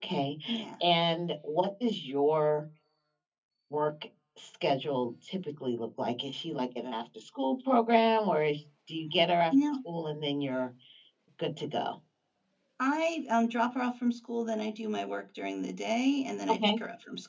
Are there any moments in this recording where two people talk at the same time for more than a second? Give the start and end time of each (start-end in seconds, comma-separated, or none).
none